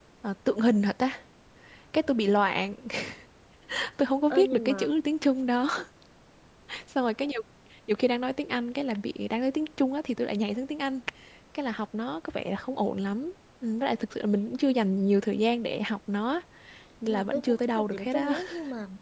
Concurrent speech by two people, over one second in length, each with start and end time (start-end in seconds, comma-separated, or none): 17.0-18.3